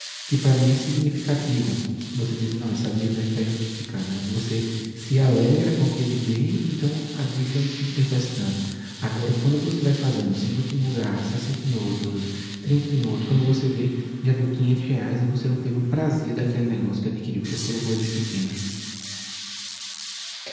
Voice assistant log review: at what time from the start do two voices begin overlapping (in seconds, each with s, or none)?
none